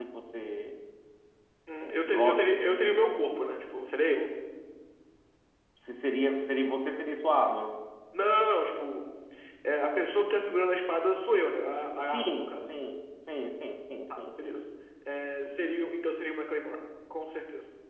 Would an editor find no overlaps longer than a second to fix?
No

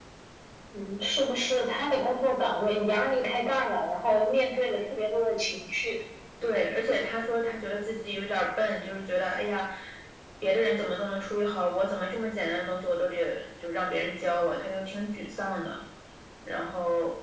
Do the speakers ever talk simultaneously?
No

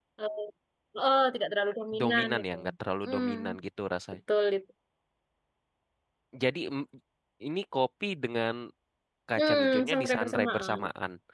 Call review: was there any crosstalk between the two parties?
Yes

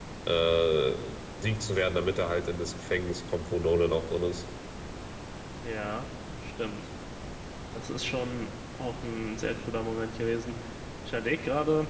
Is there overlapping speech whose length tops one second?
No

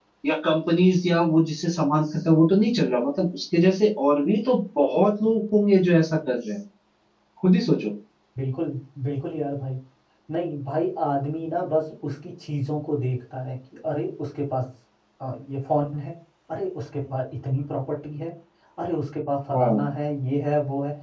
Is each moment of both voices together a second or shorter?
Yes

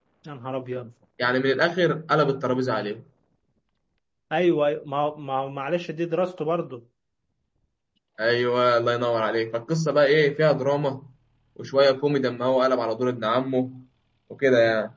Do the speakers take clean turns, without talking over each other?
Yes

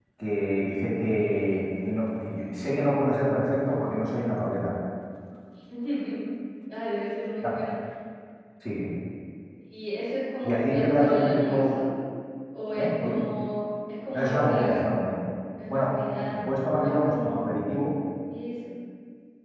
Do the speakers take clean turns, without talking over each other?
No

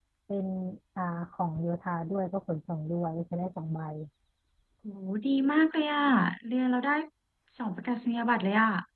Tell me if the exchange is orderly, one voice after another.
Yes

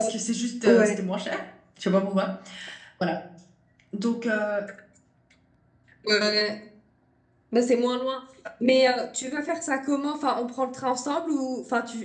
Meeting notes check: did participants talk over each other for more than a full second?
No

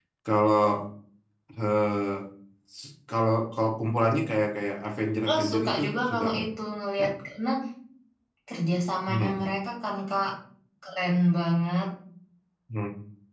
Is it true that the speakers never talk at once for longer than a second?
No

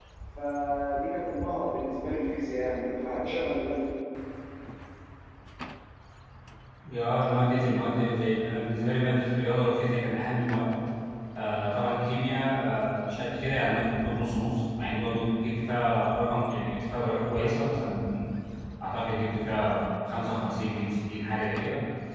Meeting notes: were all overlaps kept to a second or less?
Yes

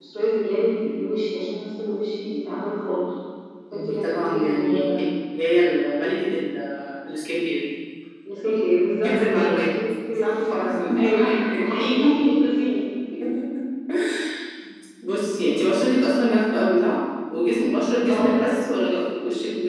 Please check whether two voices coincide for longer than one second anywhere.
Yes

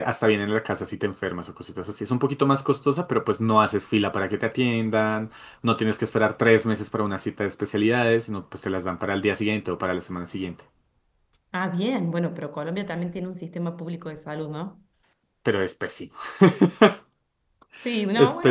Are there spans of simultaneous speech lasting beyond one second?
No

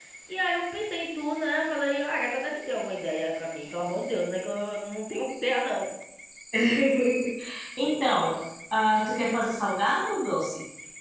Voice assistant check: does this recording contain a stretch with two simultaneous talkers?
No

